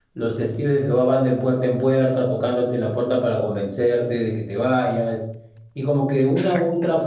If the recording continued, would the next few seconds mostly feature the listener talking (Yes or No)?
No